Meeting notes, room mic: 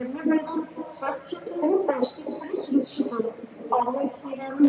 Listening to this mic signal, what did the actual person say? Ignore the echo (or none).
none